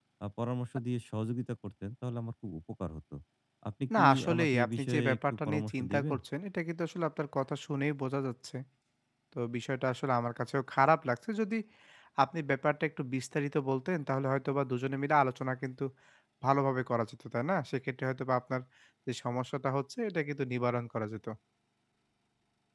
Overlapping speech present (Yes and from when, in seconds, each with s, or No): Yes, from 4.0 s